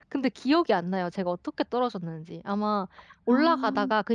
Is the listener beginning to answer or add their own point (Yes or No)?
No